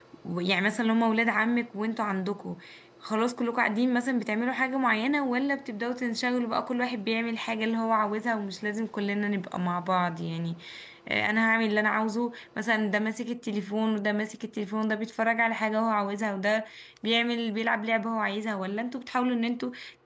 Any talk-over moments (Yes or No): No